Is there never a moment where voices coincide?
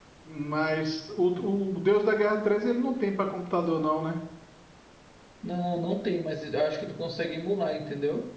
Yes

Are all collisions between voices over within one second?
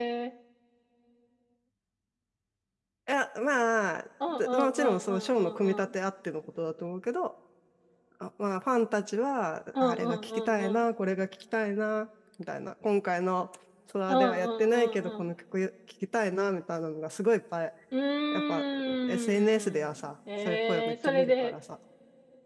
No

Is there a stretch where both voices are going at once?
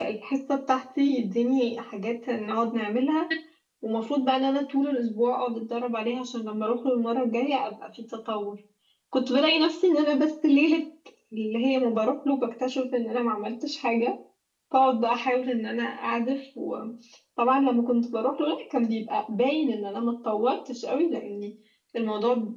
No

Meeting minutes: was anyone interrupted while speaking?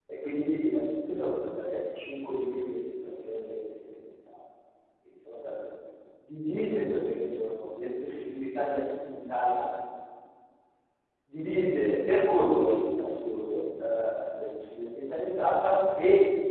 No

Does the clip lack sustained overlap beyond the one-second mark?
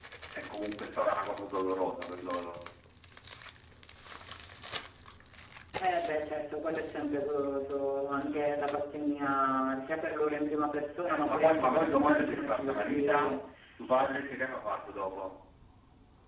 No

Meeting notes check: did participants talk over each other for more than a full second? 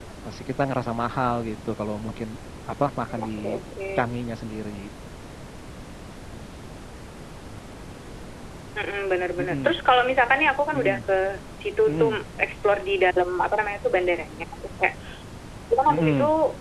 No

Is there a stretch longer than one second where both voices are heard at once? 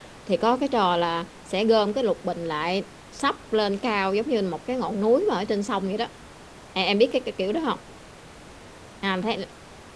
No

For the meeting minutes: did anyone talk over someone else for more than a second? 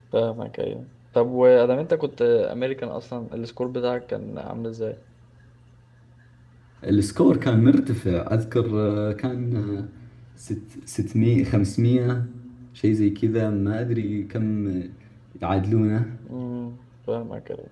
No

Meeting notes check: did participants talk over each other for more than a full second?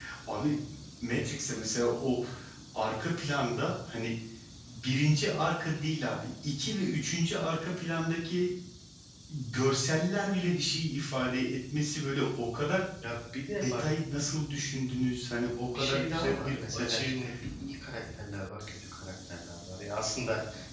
Yes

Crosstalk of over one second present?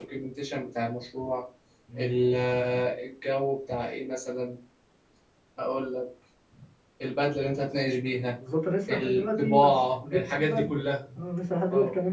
Yes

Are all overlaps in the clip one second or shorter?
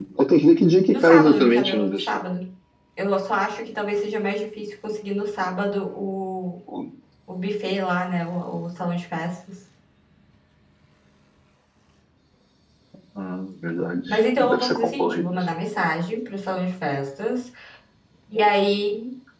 No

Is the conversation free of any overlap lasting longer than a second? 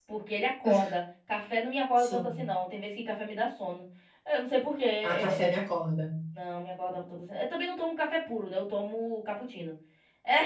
Yes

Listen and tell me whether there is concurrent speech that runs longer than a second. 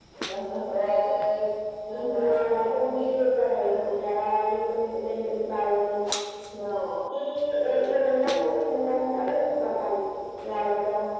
Yes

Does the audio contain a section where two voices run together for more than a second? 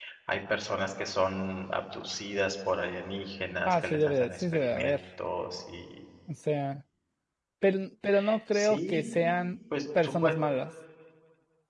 Yes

